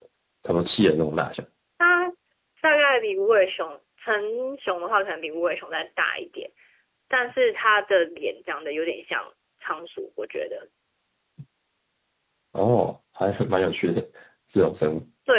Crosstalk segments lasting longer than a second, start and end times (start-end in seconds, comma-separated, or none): none